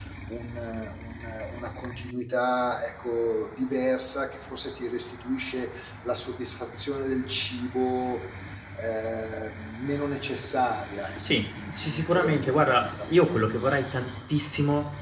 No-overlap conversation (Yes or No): No